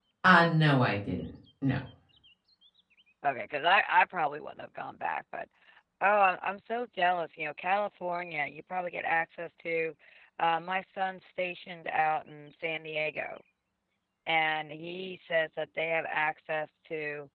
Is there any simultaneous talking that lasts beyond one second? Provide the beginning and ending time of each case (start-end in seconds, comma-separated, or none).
none